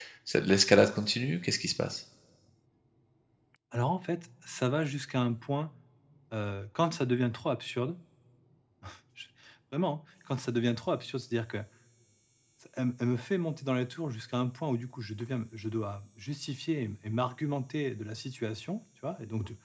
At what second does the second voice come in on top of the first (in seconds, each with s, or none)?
none